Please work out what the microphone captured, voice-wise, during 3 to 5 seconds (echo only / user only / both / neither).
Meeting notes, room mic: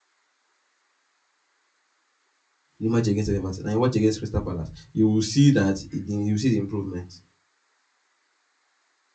user only